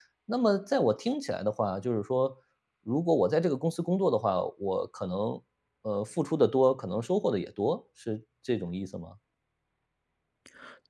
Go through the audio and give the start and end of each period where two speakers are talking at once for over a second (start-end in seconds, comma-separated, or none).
none